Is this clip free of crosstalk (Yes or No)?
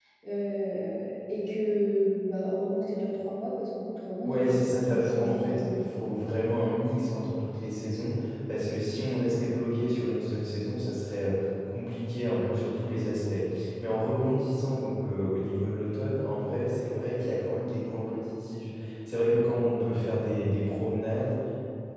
No